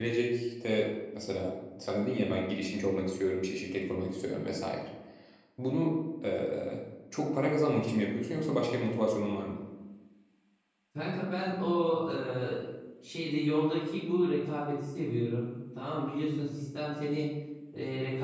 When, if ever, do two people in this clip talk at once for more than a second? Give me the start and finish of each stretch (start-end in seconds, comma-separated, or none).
none